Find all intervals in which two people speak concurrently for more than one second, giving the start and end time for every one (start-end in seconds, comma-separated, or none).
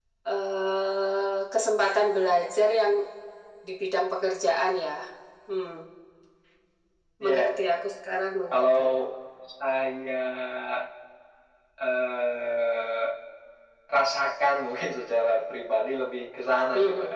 none